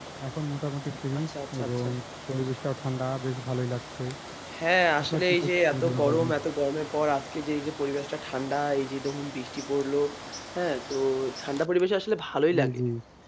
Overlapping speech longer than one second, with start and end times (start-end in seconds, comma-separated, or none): 5.0-6.3